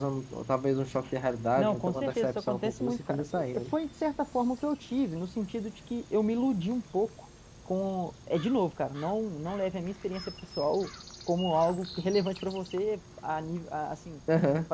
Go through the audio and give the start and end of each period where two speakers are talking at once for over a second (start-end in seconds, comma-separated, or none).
1.6-3.7